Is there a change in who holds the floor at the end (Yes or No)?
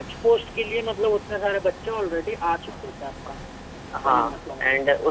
Yes